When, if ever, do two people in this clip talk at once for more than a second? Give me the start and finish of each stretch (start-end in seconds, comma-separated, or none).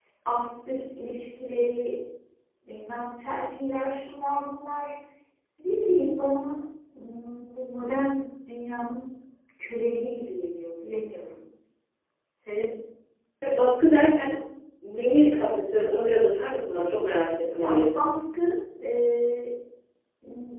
none